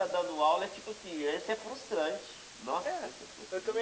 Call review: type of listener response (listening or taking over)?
taking over